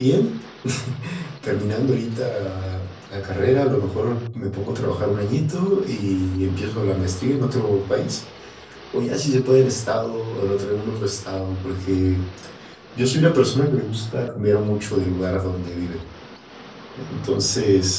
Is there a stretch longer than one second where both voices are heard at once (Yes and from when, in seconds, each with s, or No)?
No